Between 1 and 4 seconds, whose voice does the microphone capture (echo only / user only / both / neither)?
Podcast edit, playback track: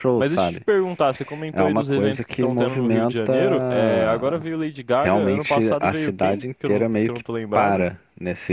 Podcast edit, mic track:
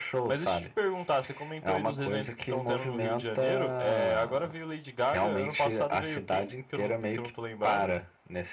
echo only